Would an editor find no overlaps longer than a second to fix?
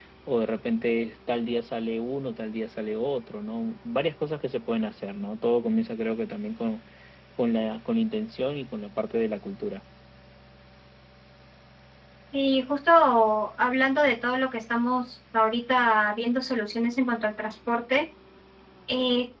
Yes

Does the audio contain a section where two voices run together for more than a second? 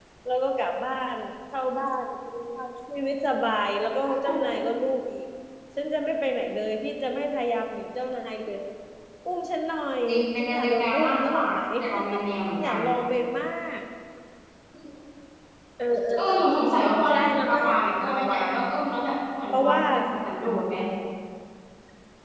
Yes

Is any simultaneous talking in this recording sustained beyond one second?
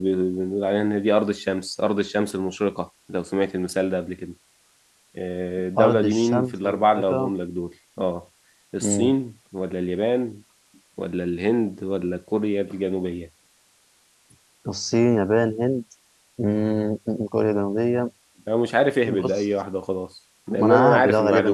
Yes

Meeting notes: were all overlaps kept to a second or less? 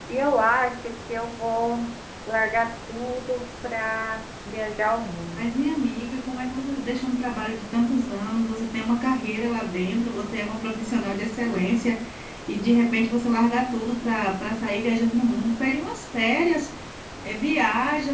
Yes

